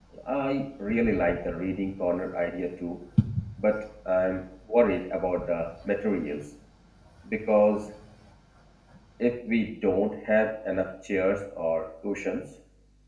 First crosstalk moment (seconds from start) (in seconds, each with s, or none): none